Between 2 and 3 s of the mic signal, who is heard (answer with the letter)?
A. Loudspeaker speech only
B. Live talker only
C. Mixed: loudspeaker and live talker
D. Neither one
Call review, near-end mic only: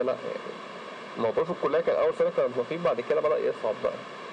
A